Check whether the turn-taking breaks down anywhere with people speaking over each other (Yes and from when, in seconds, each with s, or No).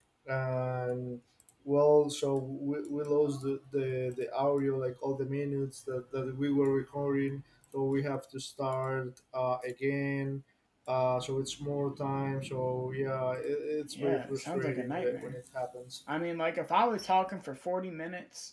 Yes, from 14.0 s